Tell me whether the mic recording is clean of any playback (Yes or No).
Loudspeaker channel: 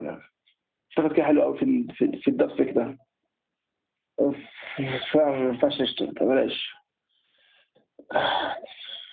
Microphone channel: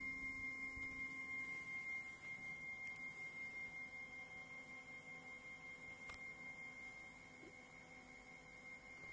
Yes